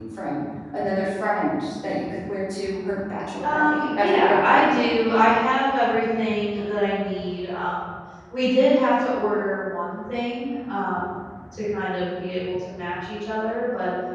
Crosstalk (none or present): present